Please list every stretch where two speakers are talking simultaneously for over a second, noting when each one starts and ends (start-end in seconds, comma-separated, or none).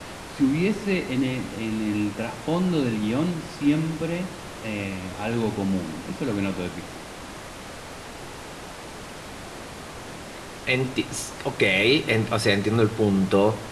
none